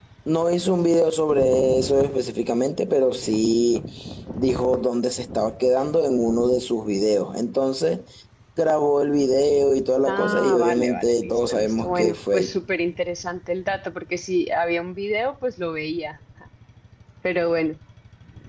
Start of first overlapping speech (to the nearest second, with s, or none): 10 s